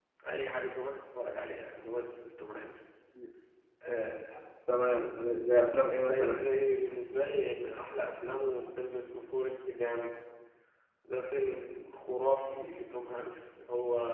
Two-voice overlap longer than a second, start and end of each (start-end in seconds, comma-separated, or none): none